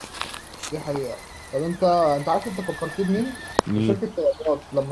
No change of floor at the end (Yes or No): Yes